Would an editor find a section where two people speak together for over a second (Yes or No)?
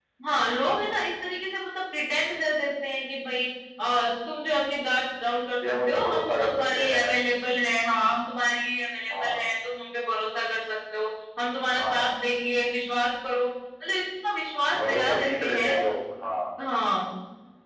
Yes